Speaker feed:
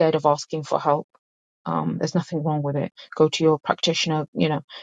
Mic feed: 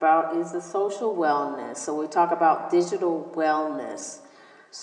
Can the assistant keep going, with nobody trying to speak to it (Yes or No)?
No